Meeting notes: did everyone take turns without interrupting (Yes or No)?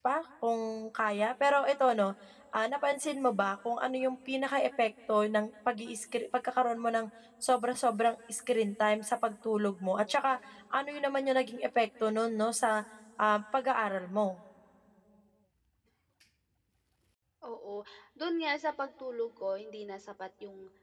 Yes